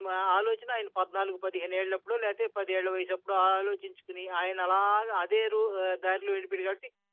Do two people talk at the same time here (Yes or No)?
No